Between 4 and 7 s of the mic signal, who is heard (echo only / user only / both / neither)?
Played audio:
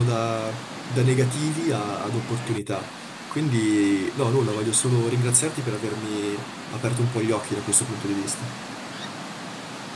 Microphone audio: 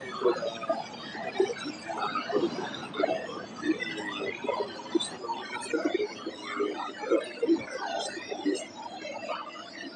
echo only